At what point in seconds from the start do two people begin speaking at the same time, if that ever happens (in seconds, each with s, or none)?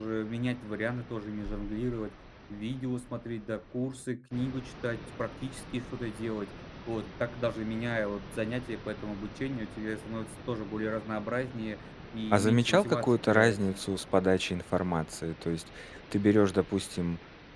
12.3 s